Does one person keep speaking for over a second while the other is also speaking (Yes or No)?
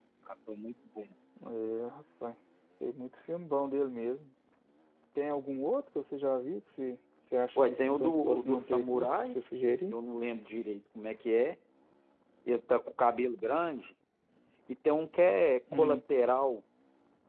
Yes